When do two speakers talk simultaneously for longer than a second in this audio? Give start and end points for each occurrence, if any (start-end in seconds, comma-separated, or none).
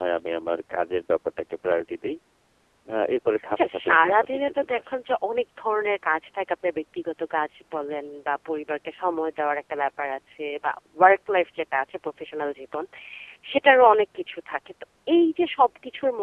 3.5-4.8